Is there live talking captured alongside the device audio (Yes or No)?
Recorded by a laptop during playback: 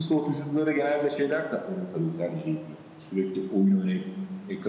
Yes